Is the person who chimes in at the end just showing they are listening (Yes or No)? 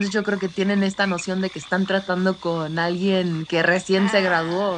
No